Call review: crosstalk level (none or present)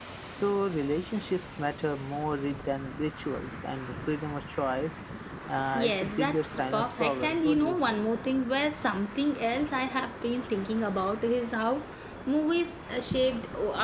present